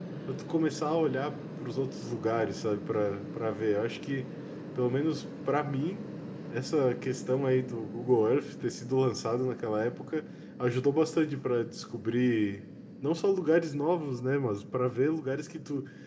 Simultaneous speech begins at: none

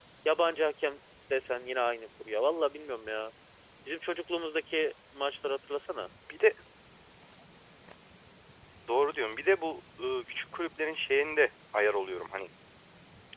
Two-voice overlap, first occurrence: none

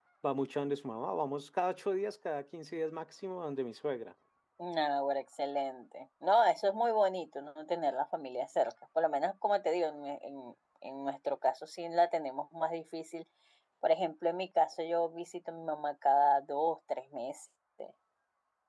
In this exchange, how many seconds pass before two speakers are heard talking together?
none

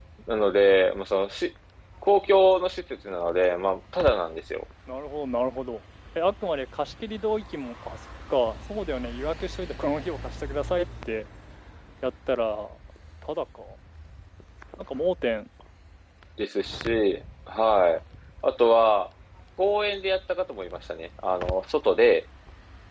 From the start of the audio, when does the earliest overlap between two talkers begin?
none

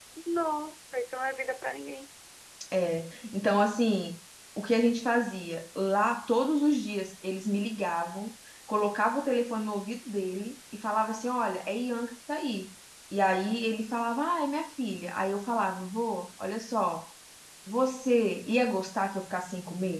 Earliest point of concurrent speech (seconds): none

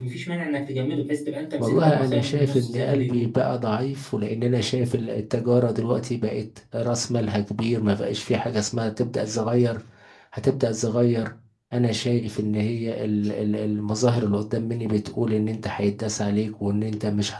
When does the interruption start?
2 s

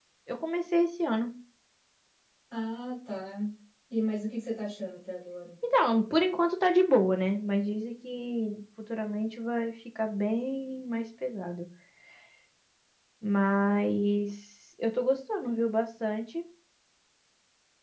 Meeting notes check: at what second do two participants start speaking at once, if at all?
none

